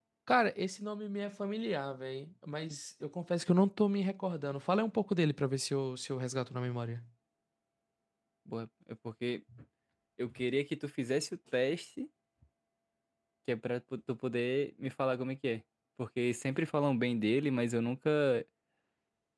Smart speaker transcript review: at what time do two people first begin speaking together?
none

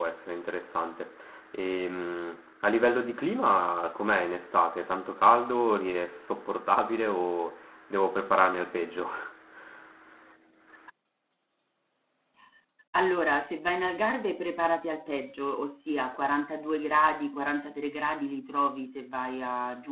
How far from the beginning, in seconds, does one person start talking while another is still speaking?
none

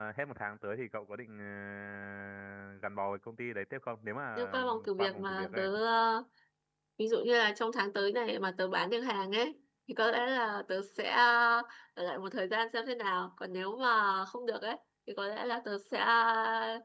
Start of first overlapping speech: 4.4 s

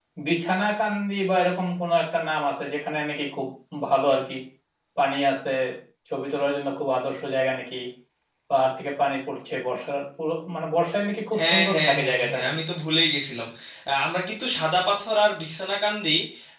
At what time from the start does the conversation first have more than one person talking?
11.3 s

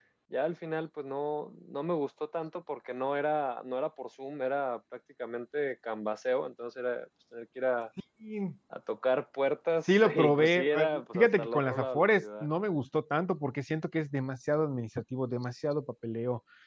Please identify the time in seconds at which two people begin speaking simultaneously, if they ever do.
9.9 s

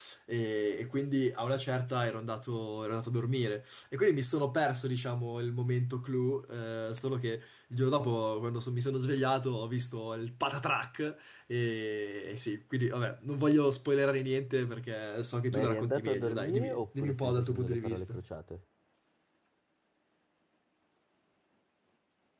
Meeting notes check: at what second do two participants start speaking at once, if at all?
15.5 s

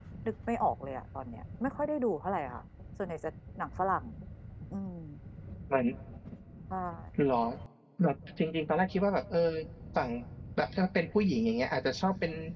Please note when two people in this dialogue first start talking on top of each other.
none

